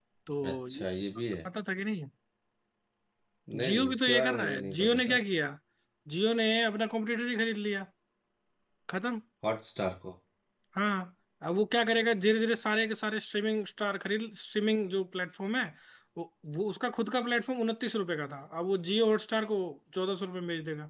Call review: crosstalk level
present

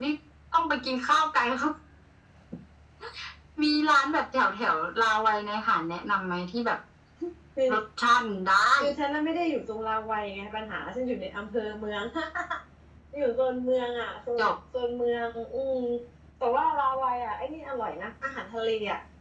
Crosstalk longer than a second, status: none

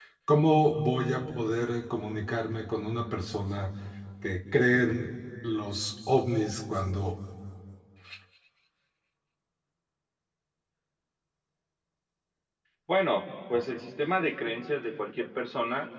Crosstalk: none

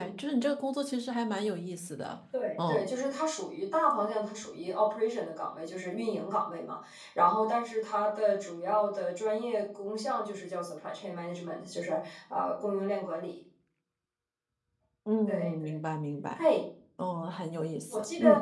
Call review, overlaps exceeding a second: none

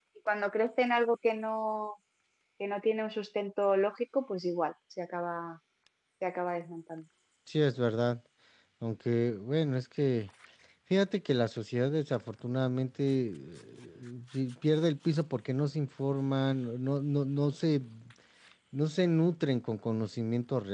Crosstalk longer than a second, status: none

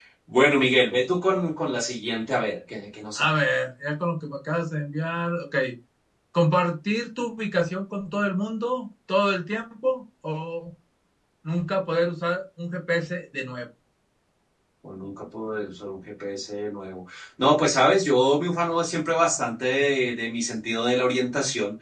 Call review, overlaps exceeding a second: none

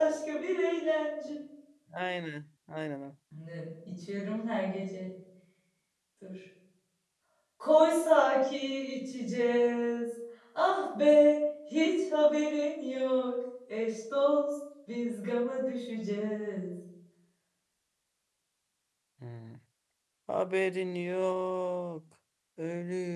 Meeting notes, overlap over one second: none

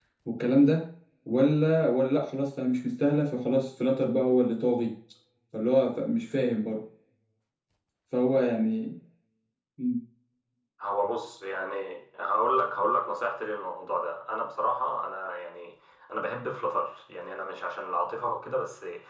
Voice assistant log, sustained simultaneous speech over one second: none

